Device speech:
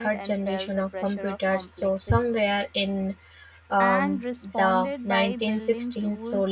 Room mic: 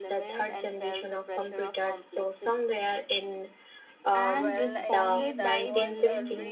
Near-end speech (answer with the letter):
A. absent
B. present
B